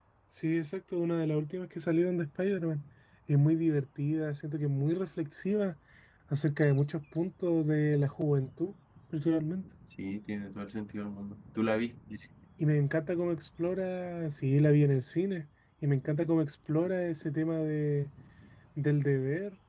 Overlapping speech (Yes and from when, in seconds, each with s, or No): No